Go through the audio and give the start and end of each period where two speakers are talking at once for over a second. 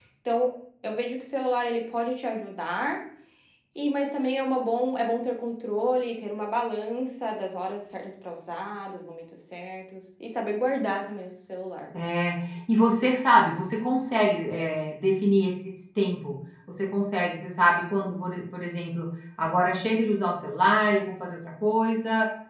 none

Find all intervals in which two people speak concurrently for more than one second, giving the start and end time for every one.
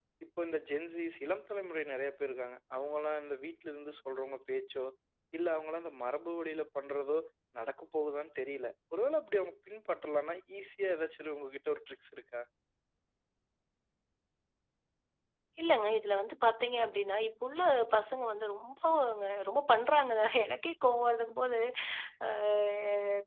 none

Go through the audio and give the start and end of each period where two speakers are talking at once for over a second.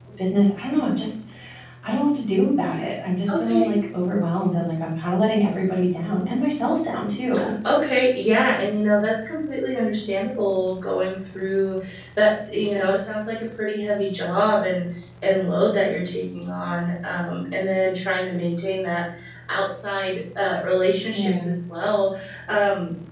none

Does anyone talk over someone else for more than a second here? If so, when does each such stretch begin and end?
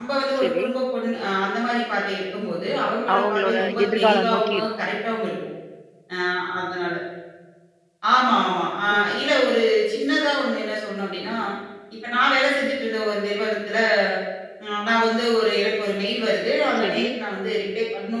3.1-4.8

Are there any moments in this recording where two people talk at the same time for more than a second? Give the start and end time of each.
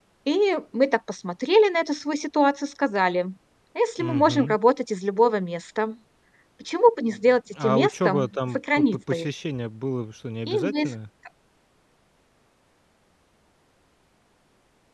7.6-9.3

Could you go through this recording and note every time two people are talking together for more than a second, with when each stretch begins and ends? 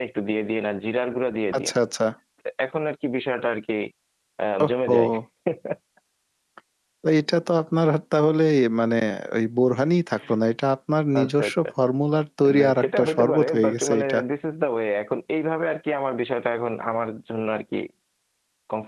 12.6-14.2

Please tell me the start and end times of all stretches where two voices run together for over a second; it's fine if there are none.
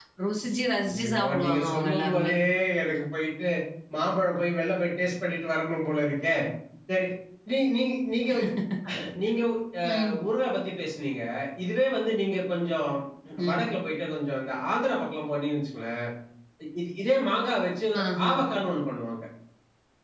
1.0-2.3

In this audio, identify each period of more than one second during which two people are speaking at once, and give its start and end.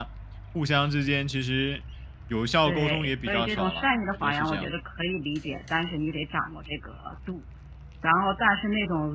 2.7-4.7

